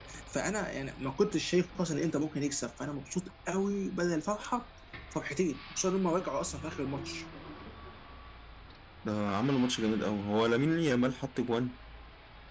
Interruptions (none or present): none